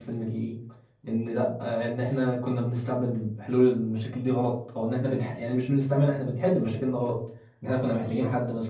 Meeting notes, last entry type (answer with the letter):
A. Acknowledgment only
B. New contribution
A